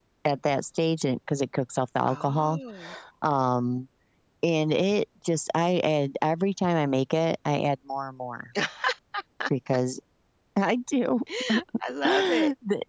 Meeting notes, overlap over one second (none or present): none